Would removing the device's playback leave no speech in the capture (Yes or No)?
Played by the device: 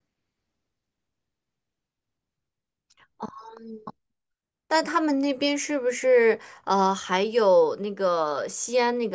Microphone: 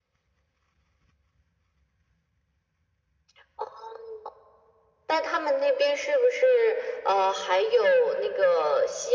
Yes